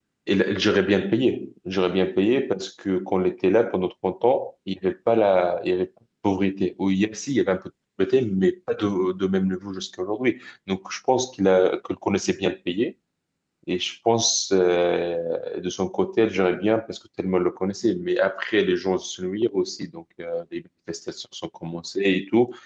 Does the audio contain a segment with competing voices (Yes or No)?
No